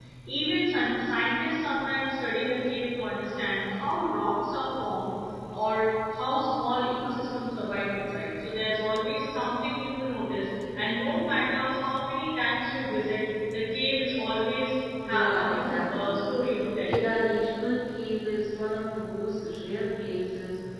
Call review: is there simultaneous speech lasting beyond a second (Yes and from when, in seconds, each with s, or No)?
Yes, from 15.0 s